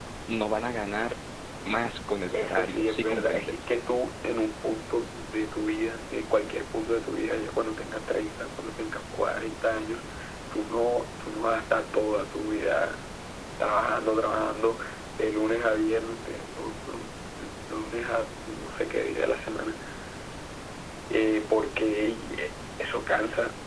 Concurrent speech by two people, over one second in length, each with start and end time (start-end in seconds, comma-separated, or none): 2.3-3.5